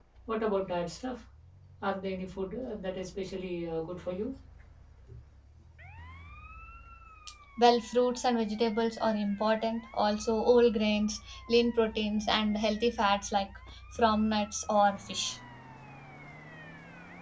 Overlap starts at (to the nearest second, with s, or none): none